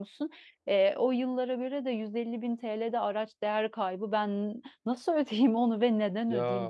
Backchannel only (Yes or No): No